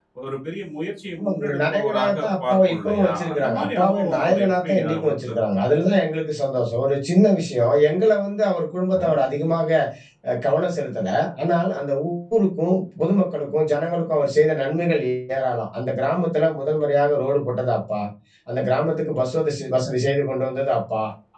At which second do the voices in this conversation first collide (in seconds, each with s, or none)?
1.2 s